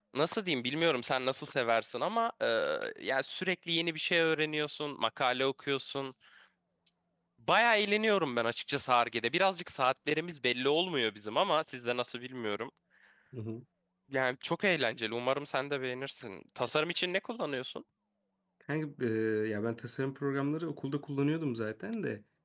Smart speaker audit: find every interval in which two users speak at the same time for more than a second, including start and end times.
none

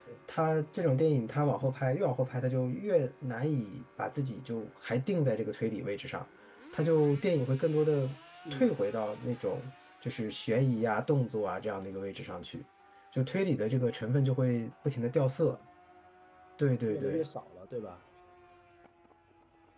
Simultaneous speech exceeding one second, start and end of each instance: none

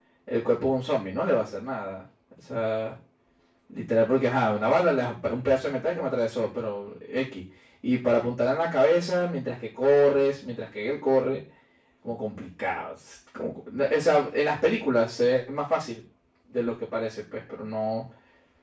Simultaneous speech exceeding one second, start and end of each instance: none

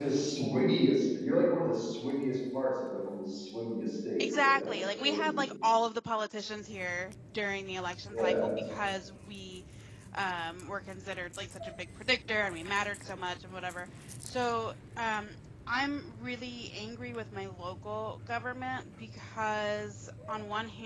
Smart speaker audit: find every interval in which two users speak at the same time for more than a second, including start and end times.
4.2-5.5

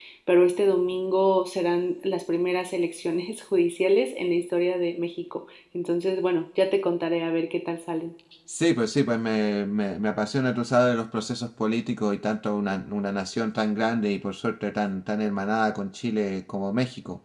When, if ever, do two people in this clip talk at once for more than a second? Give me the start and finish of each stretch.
none

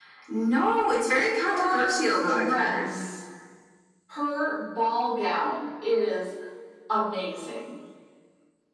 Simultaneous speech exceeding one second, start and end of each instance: 1.5-2.9

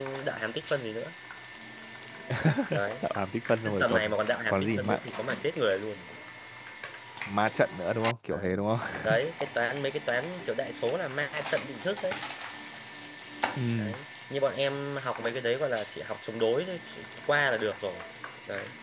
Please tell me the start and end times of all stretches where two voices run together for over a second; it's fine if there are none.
3.6-5.0

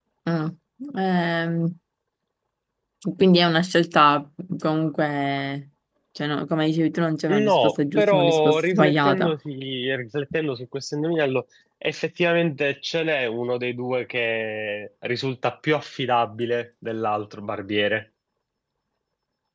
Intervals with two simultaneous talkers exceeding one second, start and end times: 7.3-9.3

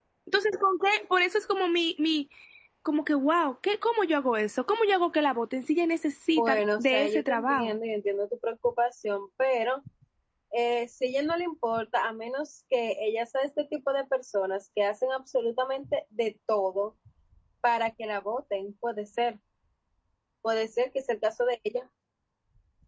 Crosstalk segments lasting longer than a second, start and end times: 6.4-7.7

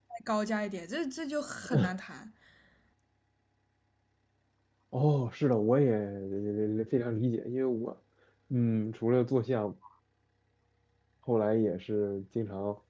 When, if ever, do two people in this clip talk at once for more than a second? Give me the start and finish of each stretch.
none

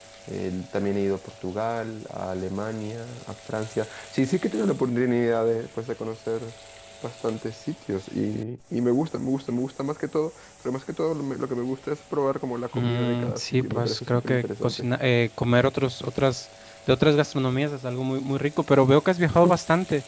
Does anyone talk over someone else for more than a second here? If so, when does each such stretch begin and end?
12.7-14.9

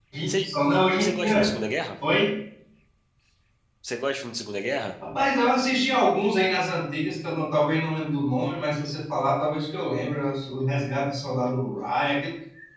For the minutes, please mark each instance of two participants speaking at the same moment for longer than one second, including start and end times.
none

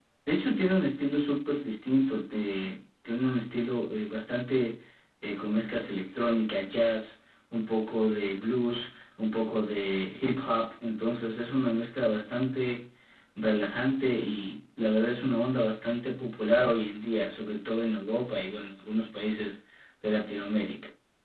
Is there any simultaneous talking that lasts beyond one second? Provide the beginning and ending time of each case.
none

